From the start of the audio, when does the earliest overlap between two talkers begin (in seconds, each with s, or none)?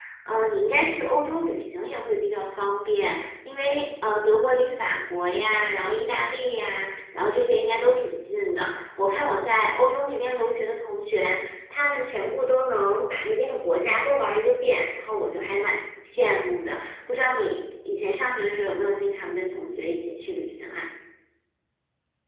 none